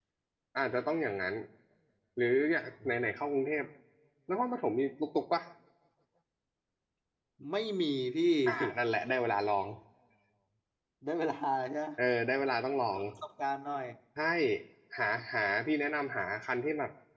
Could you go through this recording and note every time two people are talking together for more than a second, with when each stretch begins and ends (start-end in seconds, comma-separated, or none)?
none